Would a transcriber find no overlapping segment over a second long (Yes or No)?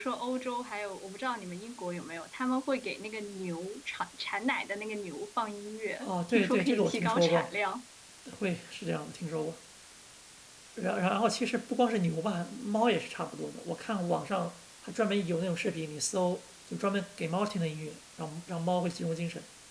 No